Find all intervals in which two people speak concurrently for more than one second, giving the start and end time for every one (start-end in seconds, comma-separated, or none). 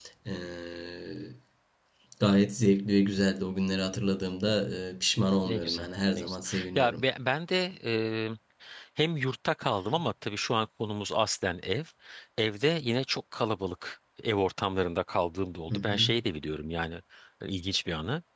5.4-7.0